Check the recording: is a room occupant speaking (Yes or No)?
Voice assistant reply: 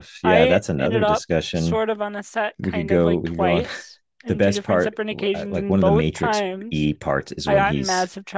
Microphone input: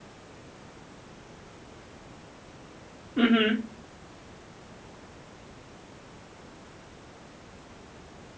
Yes